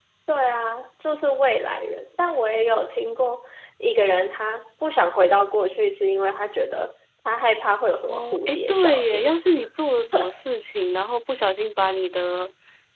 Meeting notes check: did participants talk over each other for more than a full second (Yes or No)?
Yes